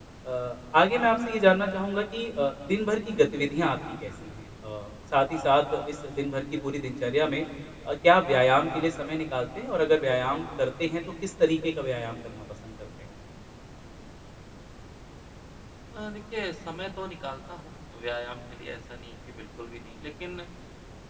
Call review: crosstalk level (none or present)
none